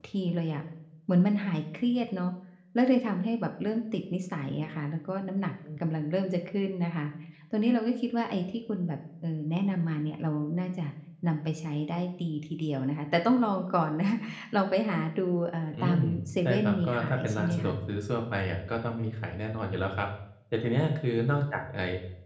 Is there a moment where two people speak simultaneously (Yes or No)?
Yes